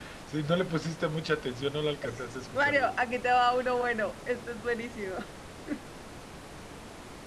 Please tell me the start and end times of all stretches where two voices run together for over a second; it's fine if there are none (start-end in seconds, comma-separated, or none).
none